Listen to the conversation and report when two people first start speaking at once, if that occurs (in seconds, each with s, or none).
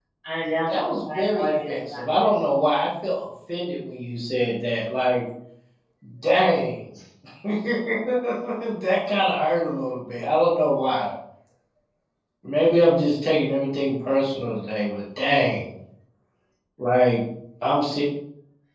0.7 s